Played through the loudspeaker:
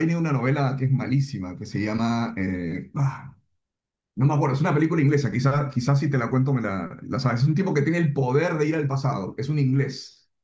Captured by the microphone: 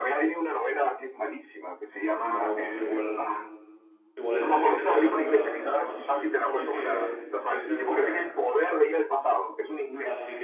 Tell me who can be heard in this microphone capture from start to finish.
both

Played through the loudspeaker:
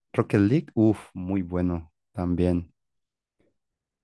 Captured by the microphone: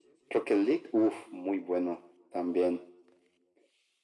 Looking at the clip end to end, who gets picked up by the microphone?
echo only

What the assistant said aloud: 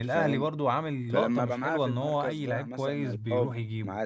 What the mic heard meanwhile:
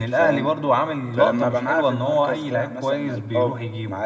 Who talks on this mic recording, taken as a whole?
echo only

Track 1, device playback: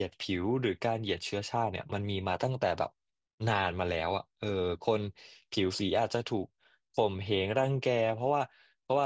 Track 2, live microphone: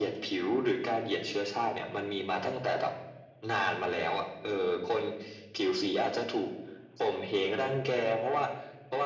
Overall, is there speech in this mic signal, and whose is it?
echo only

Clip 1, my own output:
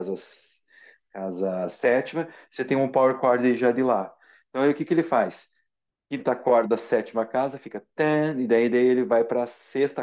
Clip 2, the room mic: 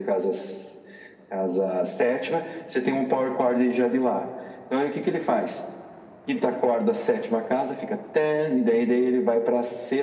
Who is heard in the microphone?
echo only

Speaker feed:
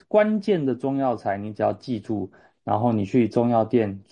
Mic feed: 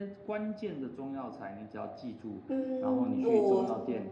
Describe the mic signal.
both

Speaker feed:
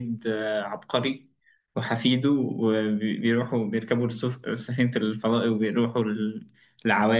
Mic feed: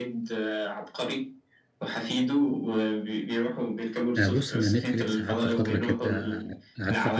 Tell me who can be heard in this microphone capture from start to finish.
both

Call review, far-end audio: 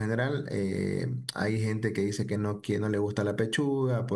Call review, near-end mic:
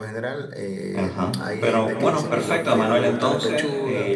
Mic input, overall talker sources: both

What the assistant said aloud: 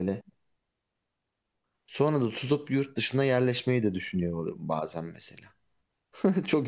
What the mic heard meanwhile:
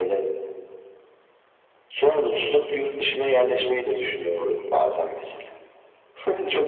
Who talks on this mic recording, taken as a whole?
echo only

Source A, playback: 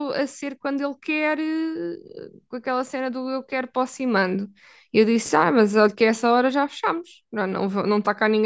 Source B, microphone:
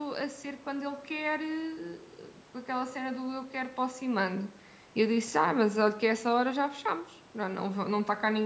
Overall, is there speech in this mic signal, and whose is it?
echo only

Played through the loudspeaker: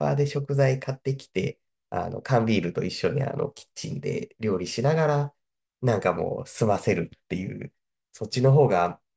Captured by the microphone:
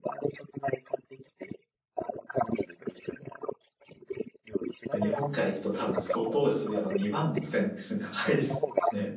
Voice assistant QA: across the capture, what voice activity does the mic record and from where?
both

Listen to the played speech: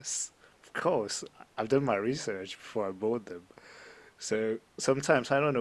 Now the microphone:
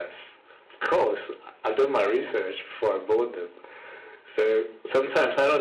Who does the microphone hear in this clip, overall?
echo only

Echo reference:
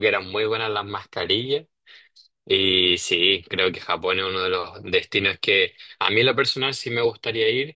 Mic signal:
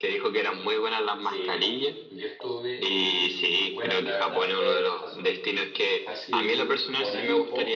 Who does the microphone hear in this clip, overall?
both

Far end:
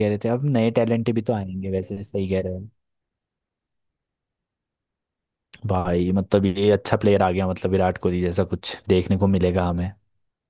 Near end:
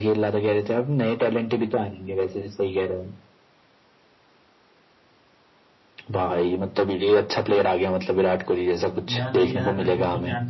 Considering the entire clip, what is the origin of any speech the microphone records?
both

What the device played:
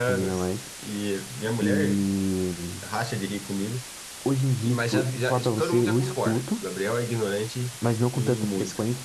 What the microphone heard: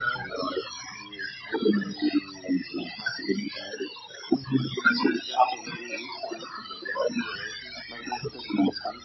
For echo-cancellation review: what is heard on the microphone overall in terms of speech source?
echo only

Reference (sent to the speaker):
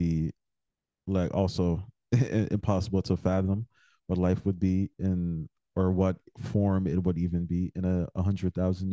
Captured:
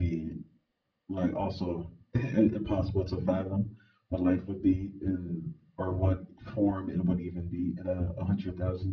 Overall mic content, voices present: echo only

